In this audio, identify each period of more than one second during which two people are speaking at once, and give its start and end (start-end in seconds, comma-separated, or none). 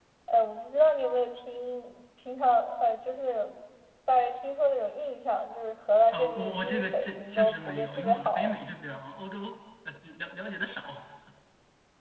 6.1-8.5